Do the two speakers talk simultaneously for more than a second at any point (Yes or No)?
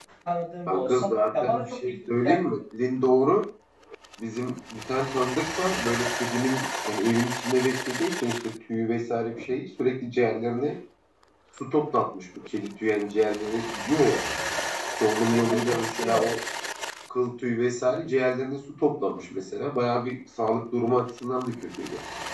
Yes